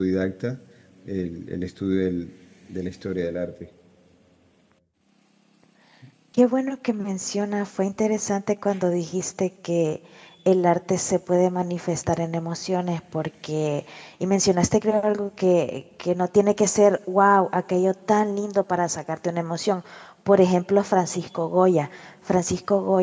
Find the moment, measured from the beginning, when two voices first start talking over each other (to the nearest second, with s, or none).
none